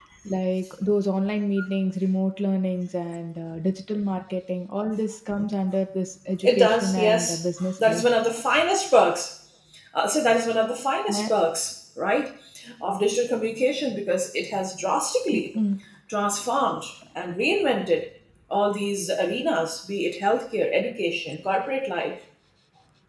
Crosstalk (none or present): present